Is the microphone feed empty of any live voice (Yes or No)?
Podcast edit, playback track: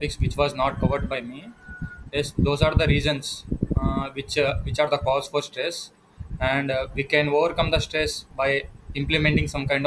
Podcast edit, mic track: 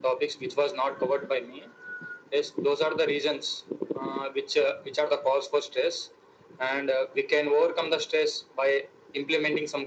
Yes